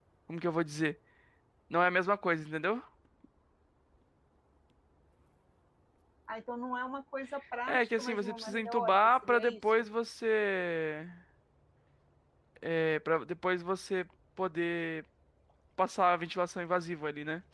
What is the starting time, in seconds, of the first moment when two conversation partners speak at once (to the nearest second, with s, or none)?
8 s